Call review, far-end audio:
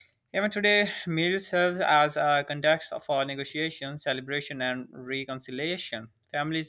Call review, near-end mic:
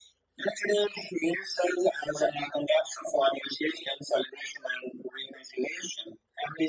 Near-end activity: none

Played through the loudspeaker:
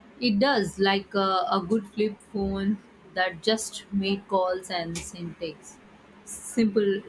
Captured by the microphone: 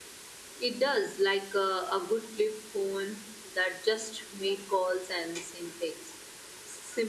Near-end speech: none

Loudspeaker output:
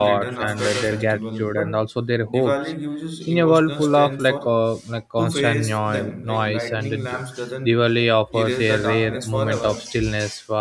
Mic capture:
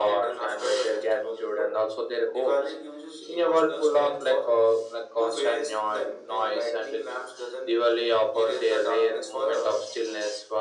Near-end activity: none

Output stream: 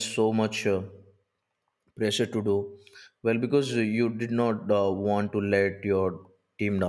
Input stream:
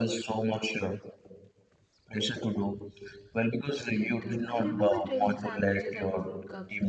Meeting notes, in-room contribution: present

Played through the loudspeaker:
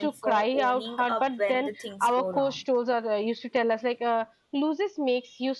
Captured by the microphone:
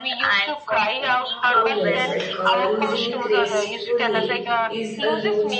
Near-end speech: present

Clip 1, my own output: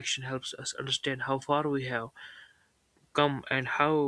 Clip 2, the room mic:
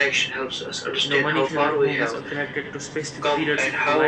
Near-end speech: present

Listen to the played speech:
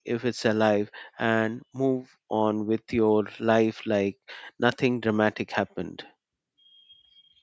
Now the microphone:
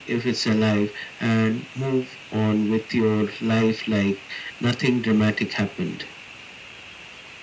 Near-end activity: none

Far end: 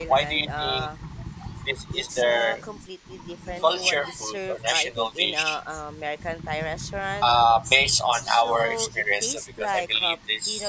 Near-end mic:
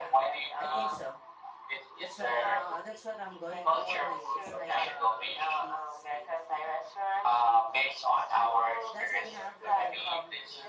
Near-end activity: present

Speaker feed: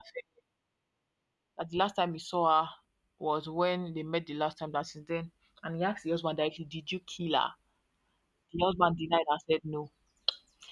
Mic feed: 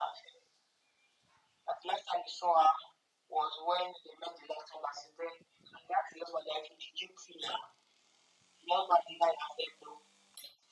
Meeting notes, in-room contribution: none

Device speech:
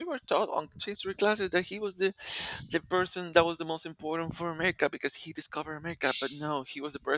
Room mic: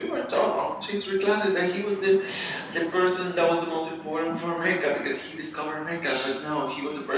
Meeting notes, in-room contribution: none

